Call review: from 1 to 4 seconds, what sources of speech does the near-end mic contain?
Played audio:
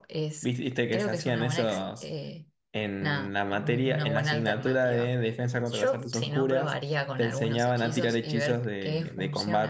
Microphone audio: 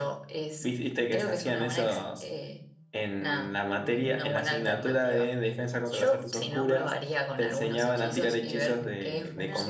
echo only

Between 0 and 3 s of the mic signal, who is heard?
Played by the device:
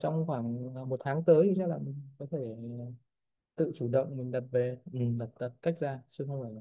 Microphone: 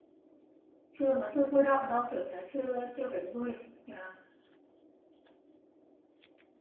user only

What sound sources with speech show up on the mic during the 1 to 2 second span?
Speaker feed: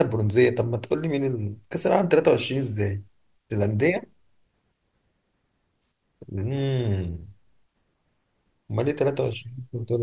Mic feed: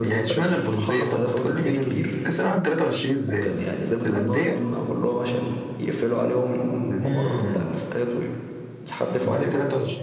both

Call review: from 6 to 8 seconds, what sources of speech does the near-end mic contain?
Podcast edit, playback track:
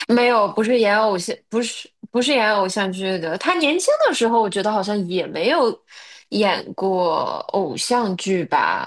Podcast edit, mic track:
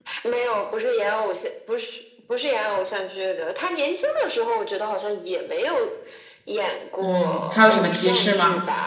both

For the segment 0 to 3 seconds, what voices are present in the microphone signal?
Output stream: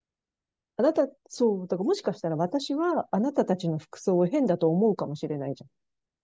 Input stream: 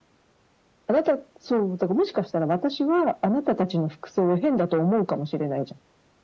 echo only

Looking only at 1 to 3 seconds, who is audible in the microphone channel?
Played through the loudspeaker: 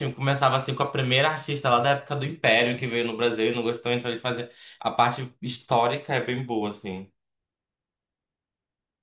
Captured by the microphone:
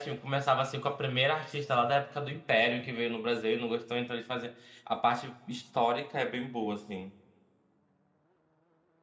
echo only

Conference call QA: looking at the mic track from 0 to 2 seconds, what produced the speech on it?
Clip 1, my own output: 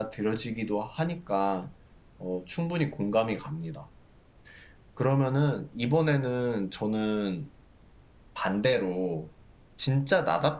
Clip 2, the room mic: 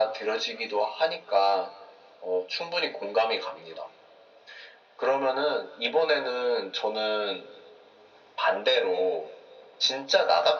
echo only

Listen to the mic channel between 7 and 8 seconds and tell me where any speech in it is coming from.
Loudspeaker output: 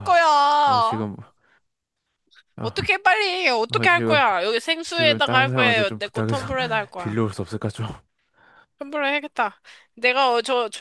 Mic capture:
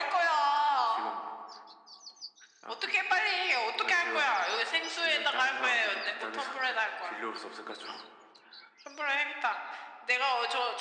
echo only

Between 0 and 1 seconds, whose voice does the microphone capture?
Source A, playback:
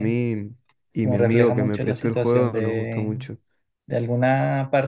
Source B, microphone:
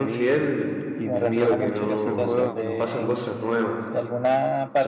both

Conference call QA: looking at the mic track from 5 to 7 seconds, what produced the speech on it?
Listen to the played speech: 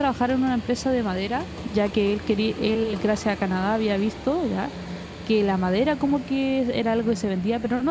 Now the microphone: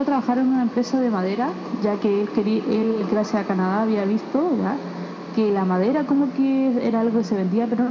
echo only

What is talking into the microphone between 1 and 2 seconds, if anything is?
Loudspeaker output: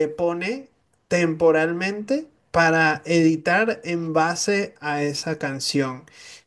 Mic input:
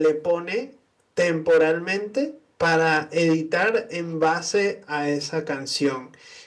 echo only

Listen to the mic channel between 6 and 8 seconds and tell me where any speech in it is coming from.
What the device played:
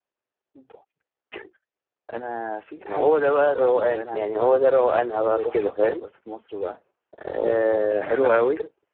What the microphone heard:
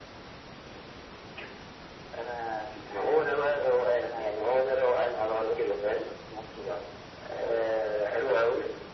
echo only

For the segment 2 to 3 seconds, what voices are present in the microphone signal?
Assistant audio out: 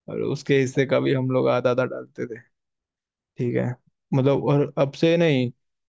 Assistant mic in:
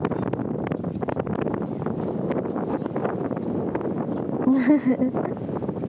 neither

